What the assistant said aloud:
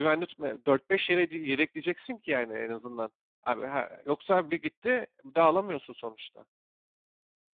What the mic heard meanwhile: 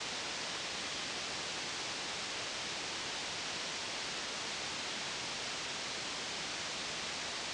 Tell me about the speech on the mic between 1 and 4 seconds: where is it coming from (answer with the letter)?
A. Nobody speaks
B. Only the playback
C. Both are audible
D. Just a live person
A